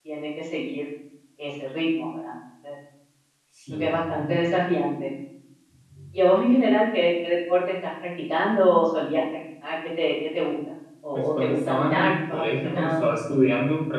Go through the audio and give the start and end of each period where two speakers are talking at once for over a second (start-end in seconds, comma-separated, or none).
11.4-13.0